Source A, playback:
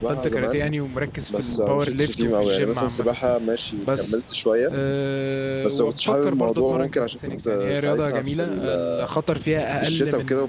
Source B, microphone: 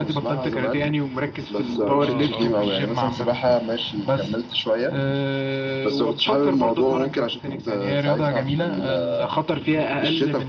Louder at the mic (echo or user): echo